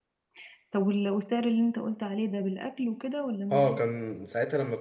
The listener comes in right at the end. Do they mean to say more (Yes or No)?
Yes